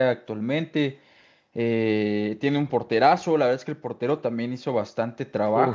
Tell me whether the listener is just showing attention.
No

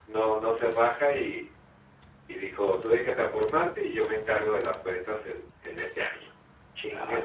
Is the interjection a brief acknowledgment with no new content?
No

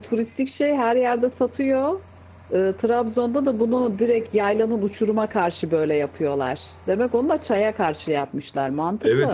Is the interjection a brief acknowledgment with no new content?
No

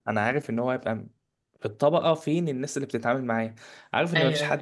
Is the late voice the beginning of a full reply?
No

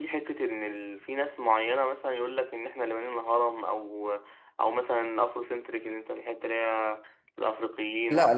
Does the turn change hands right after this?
Yes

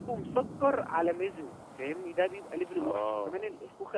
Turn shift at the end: No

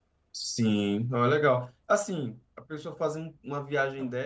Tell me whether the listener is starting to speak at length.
No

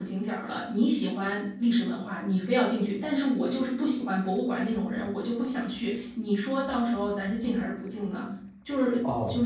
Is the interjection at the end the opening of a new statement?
Yes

